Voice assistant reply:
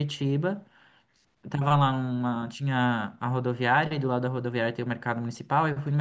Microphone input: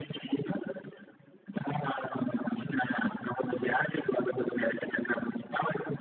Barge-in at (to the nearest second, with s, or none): none